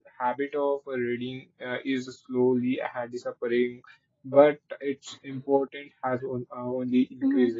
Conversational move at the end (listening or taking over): taking over